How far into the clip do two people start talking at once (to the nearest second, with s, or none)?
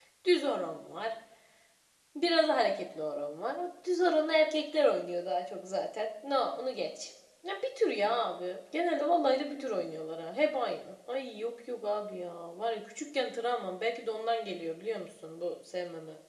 none